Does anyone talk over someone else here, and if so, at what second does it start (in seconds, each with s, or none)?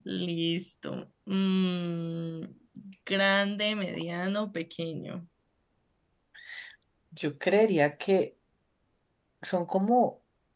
none